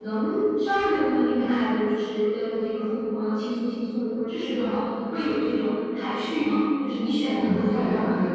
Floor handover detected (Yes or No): Yes